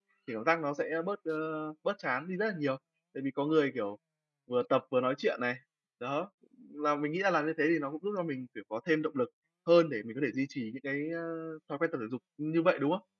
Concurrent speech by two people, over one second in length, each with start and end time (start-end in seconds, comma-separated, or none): none